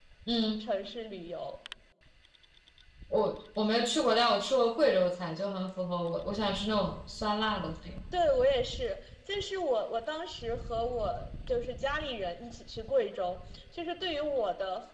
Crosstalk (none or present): none